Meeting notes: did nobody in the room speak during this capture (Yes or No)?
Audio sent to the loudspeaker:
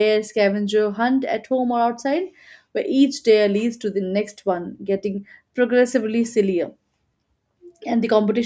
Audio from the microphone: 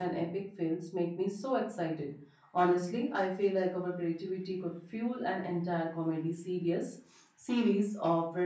No